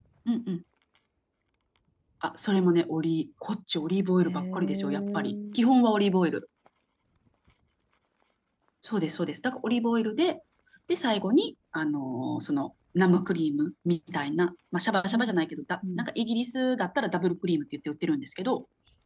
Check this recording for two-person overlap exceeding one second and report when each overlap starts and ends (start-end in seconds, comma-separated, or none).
4.2-5.6